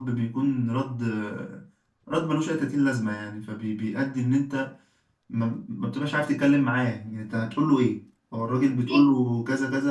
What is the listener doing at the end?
listening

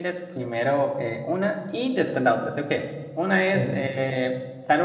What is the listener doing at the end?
listening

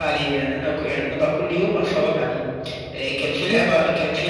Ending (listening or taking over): listening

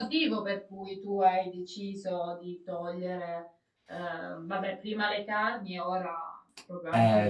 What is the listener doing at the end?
taking over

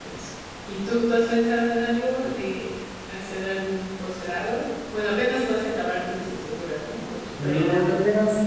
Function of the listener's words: taking over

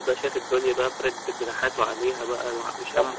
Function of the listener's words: taking over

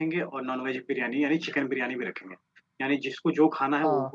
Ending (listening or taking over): listening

